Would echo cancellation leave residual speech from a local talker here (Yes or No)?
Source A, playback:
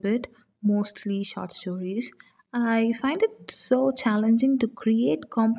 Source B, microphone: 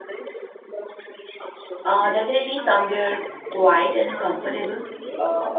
Yes